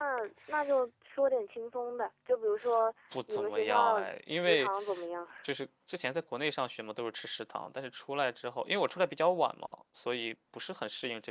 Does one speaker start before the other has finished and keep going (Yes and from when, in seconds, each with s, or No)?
Yes, from 3.1 s